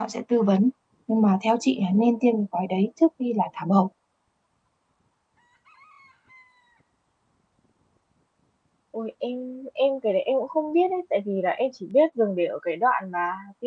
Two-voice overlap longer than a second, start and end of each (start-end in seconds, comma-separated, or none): none